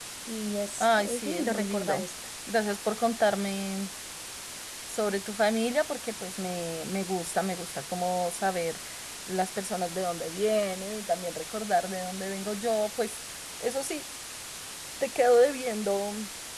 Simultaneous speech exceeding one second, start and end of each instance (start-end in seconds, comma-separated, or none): 0.8-2.1